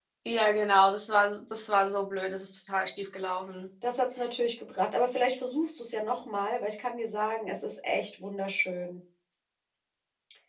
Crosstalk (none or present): none